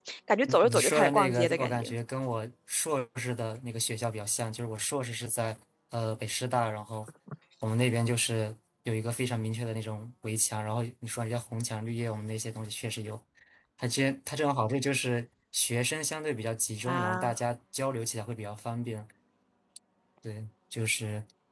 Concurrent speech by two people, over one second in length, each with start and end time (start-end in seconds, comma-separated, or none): 0.6-1.9